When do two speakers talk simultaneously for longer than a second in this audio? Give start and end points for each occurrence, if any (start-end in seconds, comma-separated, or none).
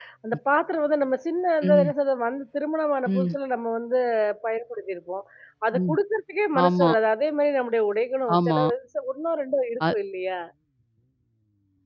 none